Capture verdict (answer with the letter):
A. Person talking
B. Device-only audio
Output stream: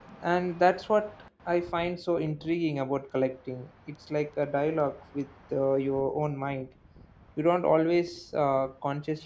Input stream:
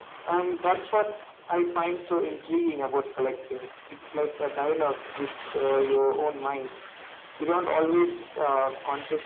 B